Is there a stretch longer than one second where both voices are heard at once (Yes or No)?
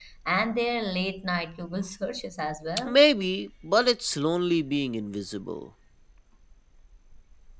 No